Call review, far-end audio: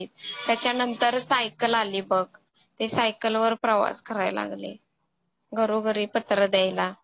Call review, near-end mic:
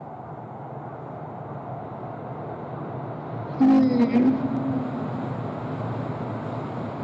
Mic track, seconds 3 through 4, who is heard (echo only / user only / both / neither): user only